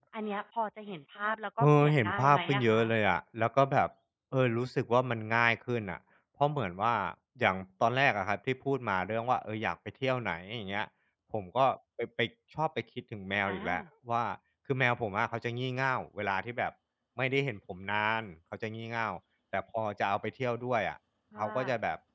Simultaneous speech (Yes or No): Yes